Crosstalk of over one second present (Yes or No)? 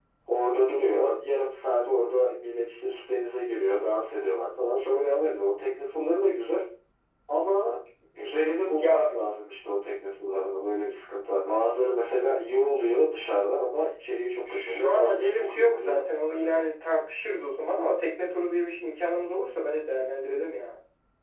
Yes